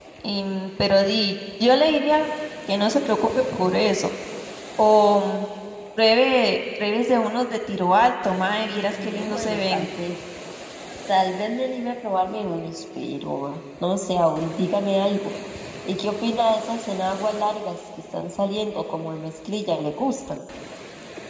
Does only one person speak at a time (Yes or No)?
No